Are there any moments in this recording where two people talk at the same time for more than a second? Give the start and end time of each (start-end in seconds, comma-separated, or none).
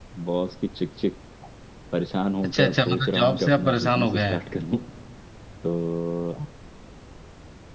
2.4-4.4